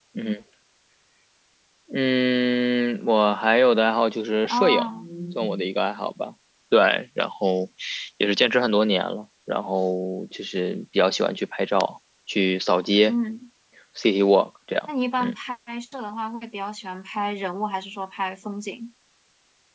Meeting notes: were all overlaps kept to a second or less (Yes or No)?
Yes